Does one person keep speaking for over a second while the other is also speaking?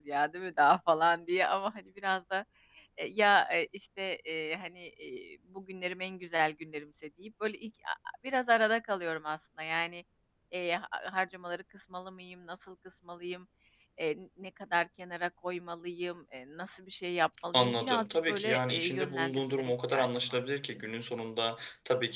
Yes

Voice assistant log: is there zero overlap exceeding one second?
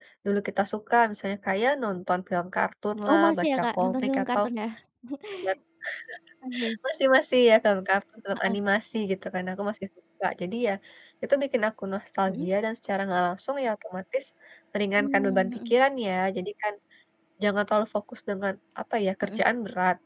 No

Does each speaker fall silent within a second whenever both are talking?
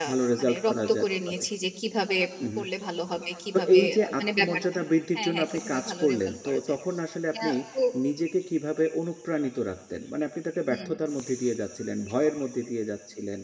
No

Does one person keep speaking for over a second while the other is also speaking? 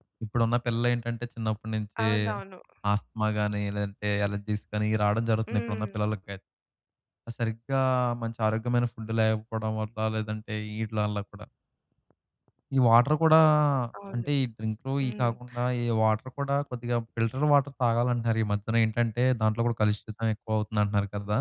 No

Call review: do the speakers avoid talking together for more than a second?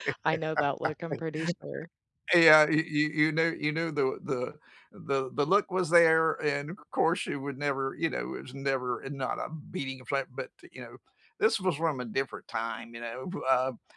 Yes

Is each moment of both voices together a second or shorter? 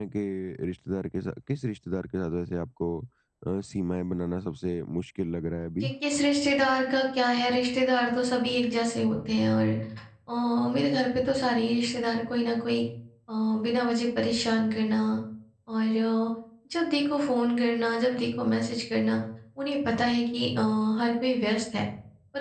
Yes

